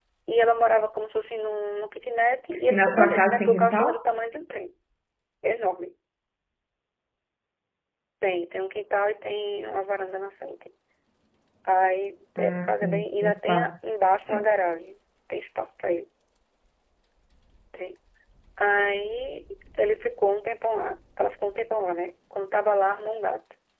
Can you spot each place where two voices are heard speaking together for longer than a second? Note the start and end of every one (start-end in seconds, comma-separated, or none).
2.7-3.9, 12.4-13.7